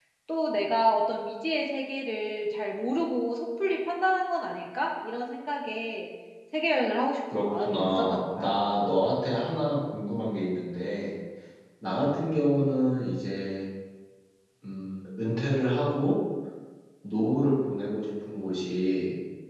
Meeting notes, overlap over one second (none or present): present